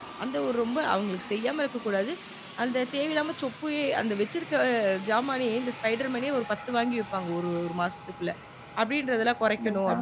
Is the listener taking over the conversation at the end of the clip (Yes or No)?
No